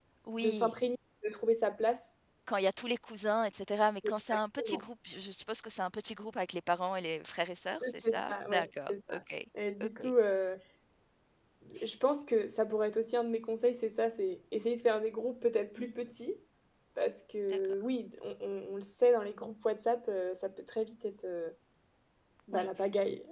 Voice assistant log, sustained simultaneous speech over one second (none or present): present